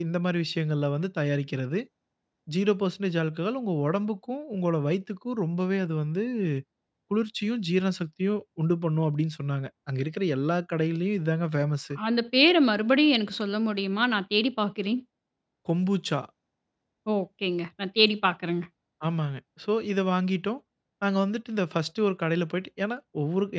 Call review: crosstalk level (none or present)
none